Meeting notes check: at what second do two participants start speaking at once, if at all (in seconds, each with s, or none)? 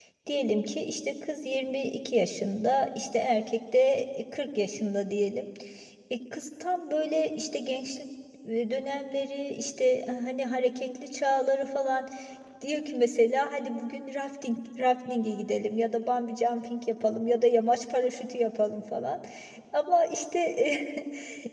none